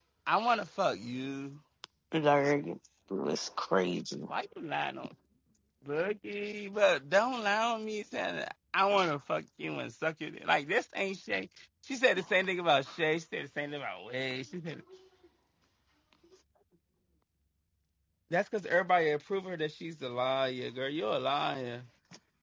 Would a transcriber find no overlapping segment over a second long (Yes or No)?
Yes